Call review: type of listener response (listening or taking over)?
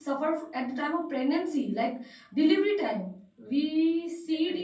listening